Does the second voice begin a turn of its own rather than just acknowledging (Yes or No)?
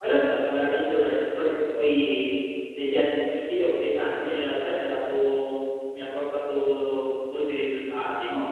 Yes